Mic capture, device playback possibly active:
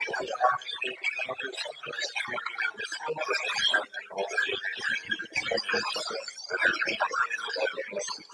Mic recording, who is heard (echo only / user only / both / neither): echo only